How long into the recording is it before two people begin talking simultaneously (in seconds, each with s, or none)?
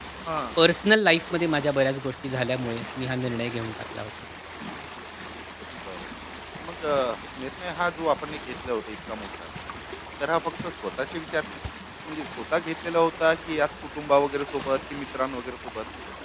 none